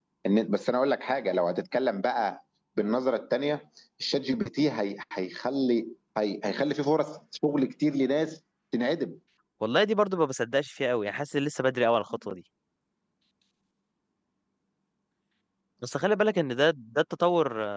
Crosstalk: none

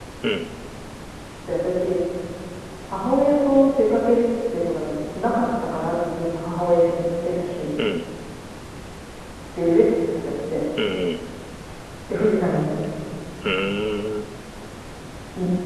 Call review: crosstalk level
none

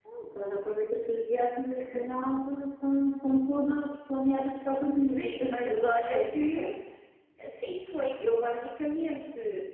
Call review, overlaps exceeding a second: present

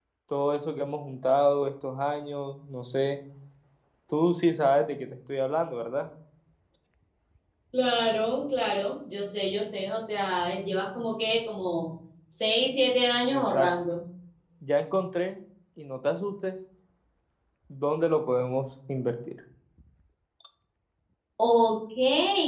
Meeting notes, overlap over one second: none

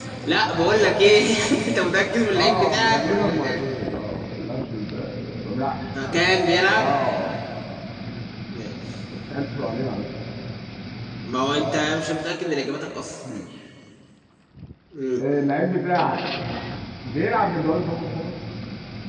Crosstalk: present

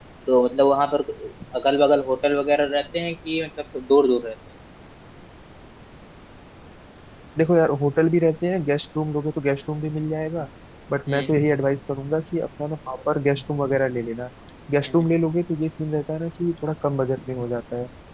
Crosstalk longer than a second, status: none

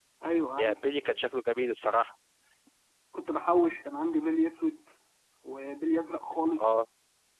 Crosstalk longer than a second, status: none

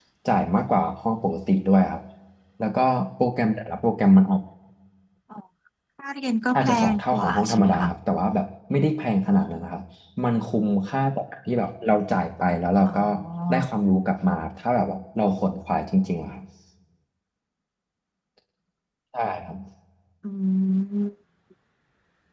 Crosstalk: present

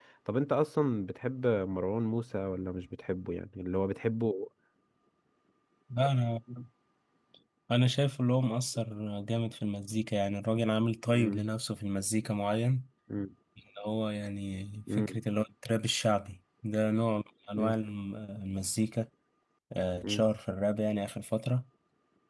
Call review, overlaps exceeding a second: none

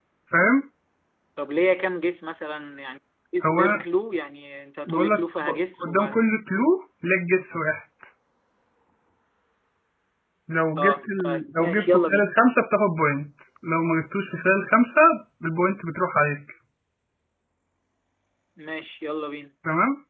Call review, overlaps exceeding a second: present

